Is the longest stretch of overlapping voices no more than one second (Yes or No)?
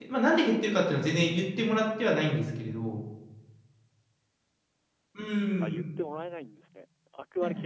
Yes